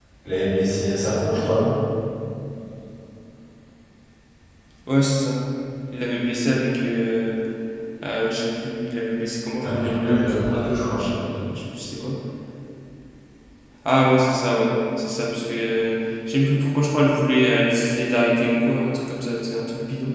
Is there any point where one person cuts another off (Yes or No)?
Yes